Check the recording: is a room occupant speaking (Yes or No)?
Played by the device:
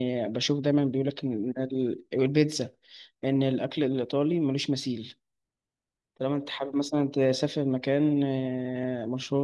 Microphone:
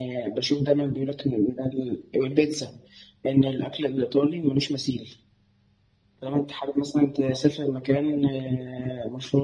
No